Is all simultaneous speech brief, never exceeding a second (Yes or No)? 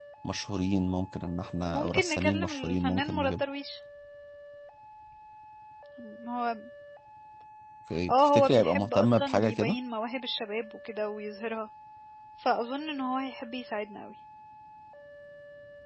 No